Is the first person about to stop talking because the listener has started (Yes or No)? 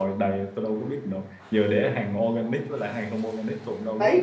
Yes